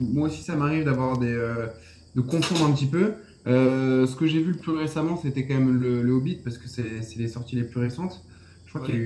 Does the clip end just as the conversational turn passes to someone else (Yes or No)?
No